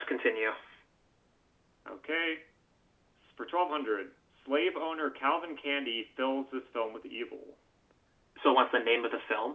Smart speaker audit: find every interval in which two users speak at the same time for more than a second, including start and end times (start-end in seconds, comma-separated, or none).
none